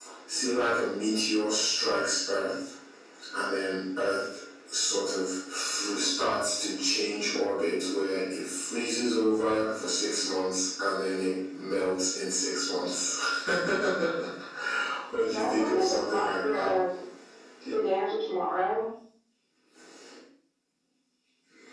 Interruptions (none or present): present